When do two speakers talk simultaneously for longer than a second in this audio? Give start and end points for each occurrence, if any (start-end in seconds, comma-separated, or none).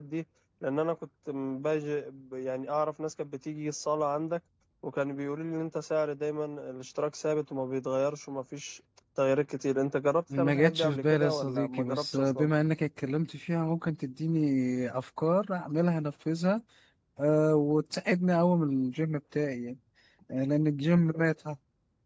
10.4-12.5